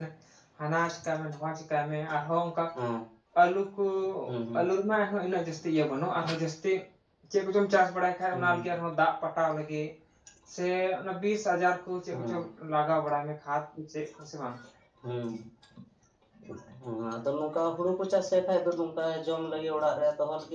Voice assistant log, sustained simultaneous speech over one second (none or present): none